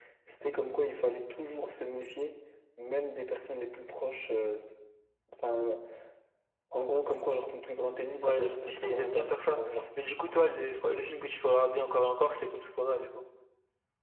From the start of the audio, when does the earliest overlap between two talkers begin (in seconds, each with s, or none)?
8.2 s